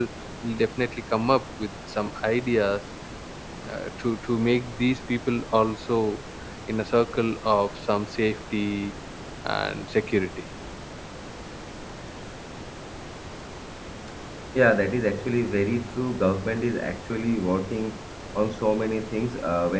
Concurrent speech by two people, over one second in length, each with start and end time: none

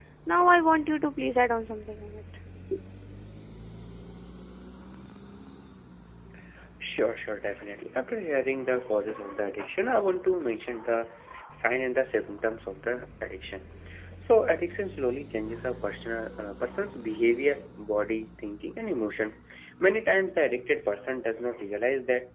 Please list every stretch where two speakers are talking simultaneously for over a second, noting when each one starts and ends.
none

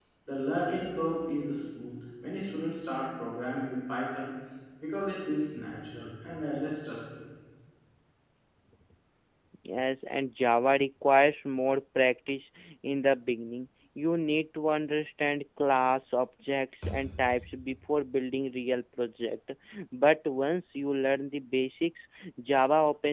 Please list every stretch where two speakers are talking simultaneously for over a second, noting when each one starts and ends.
none

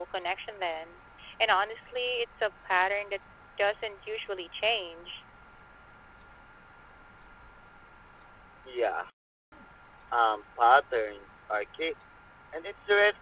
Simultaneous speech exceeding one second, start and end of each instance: none

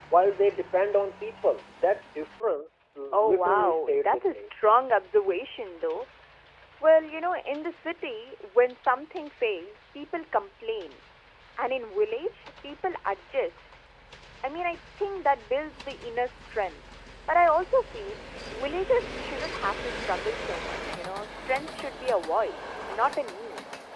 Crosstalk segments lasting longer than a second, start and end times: 3.1-4.4

